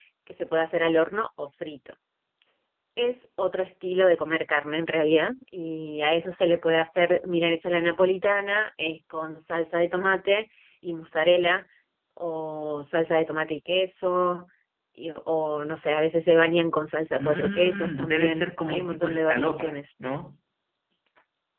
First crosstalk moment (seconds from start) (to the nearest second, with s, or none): 17 s